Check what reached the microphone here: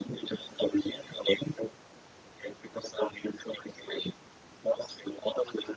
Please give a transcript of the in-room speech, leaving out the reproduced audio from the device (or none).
none